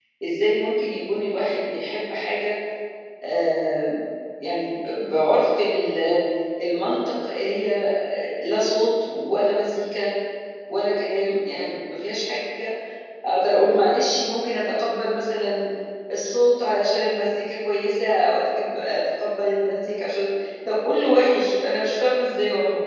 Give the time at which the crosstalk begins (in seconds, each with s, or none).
none